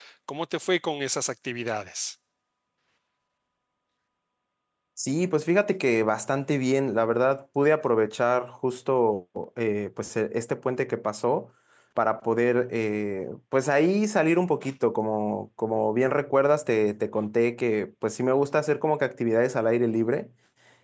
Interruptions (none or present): none